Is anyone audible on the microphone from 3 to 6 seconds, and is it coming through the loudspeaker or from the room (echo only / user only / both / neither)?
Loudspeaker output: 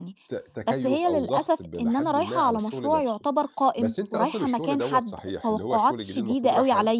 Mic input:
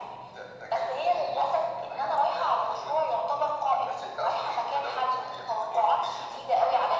echo only